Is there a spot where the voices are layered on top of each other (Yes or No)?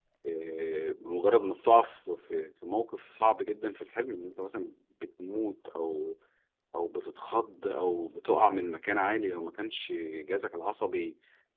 No